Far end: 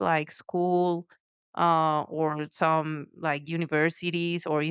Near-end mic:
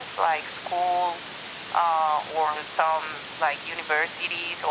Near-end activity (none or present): none